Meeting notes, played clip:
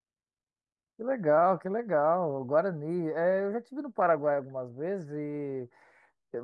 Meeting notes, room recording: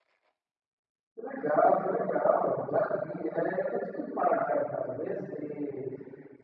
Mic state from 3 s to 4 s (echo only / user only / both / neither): echo only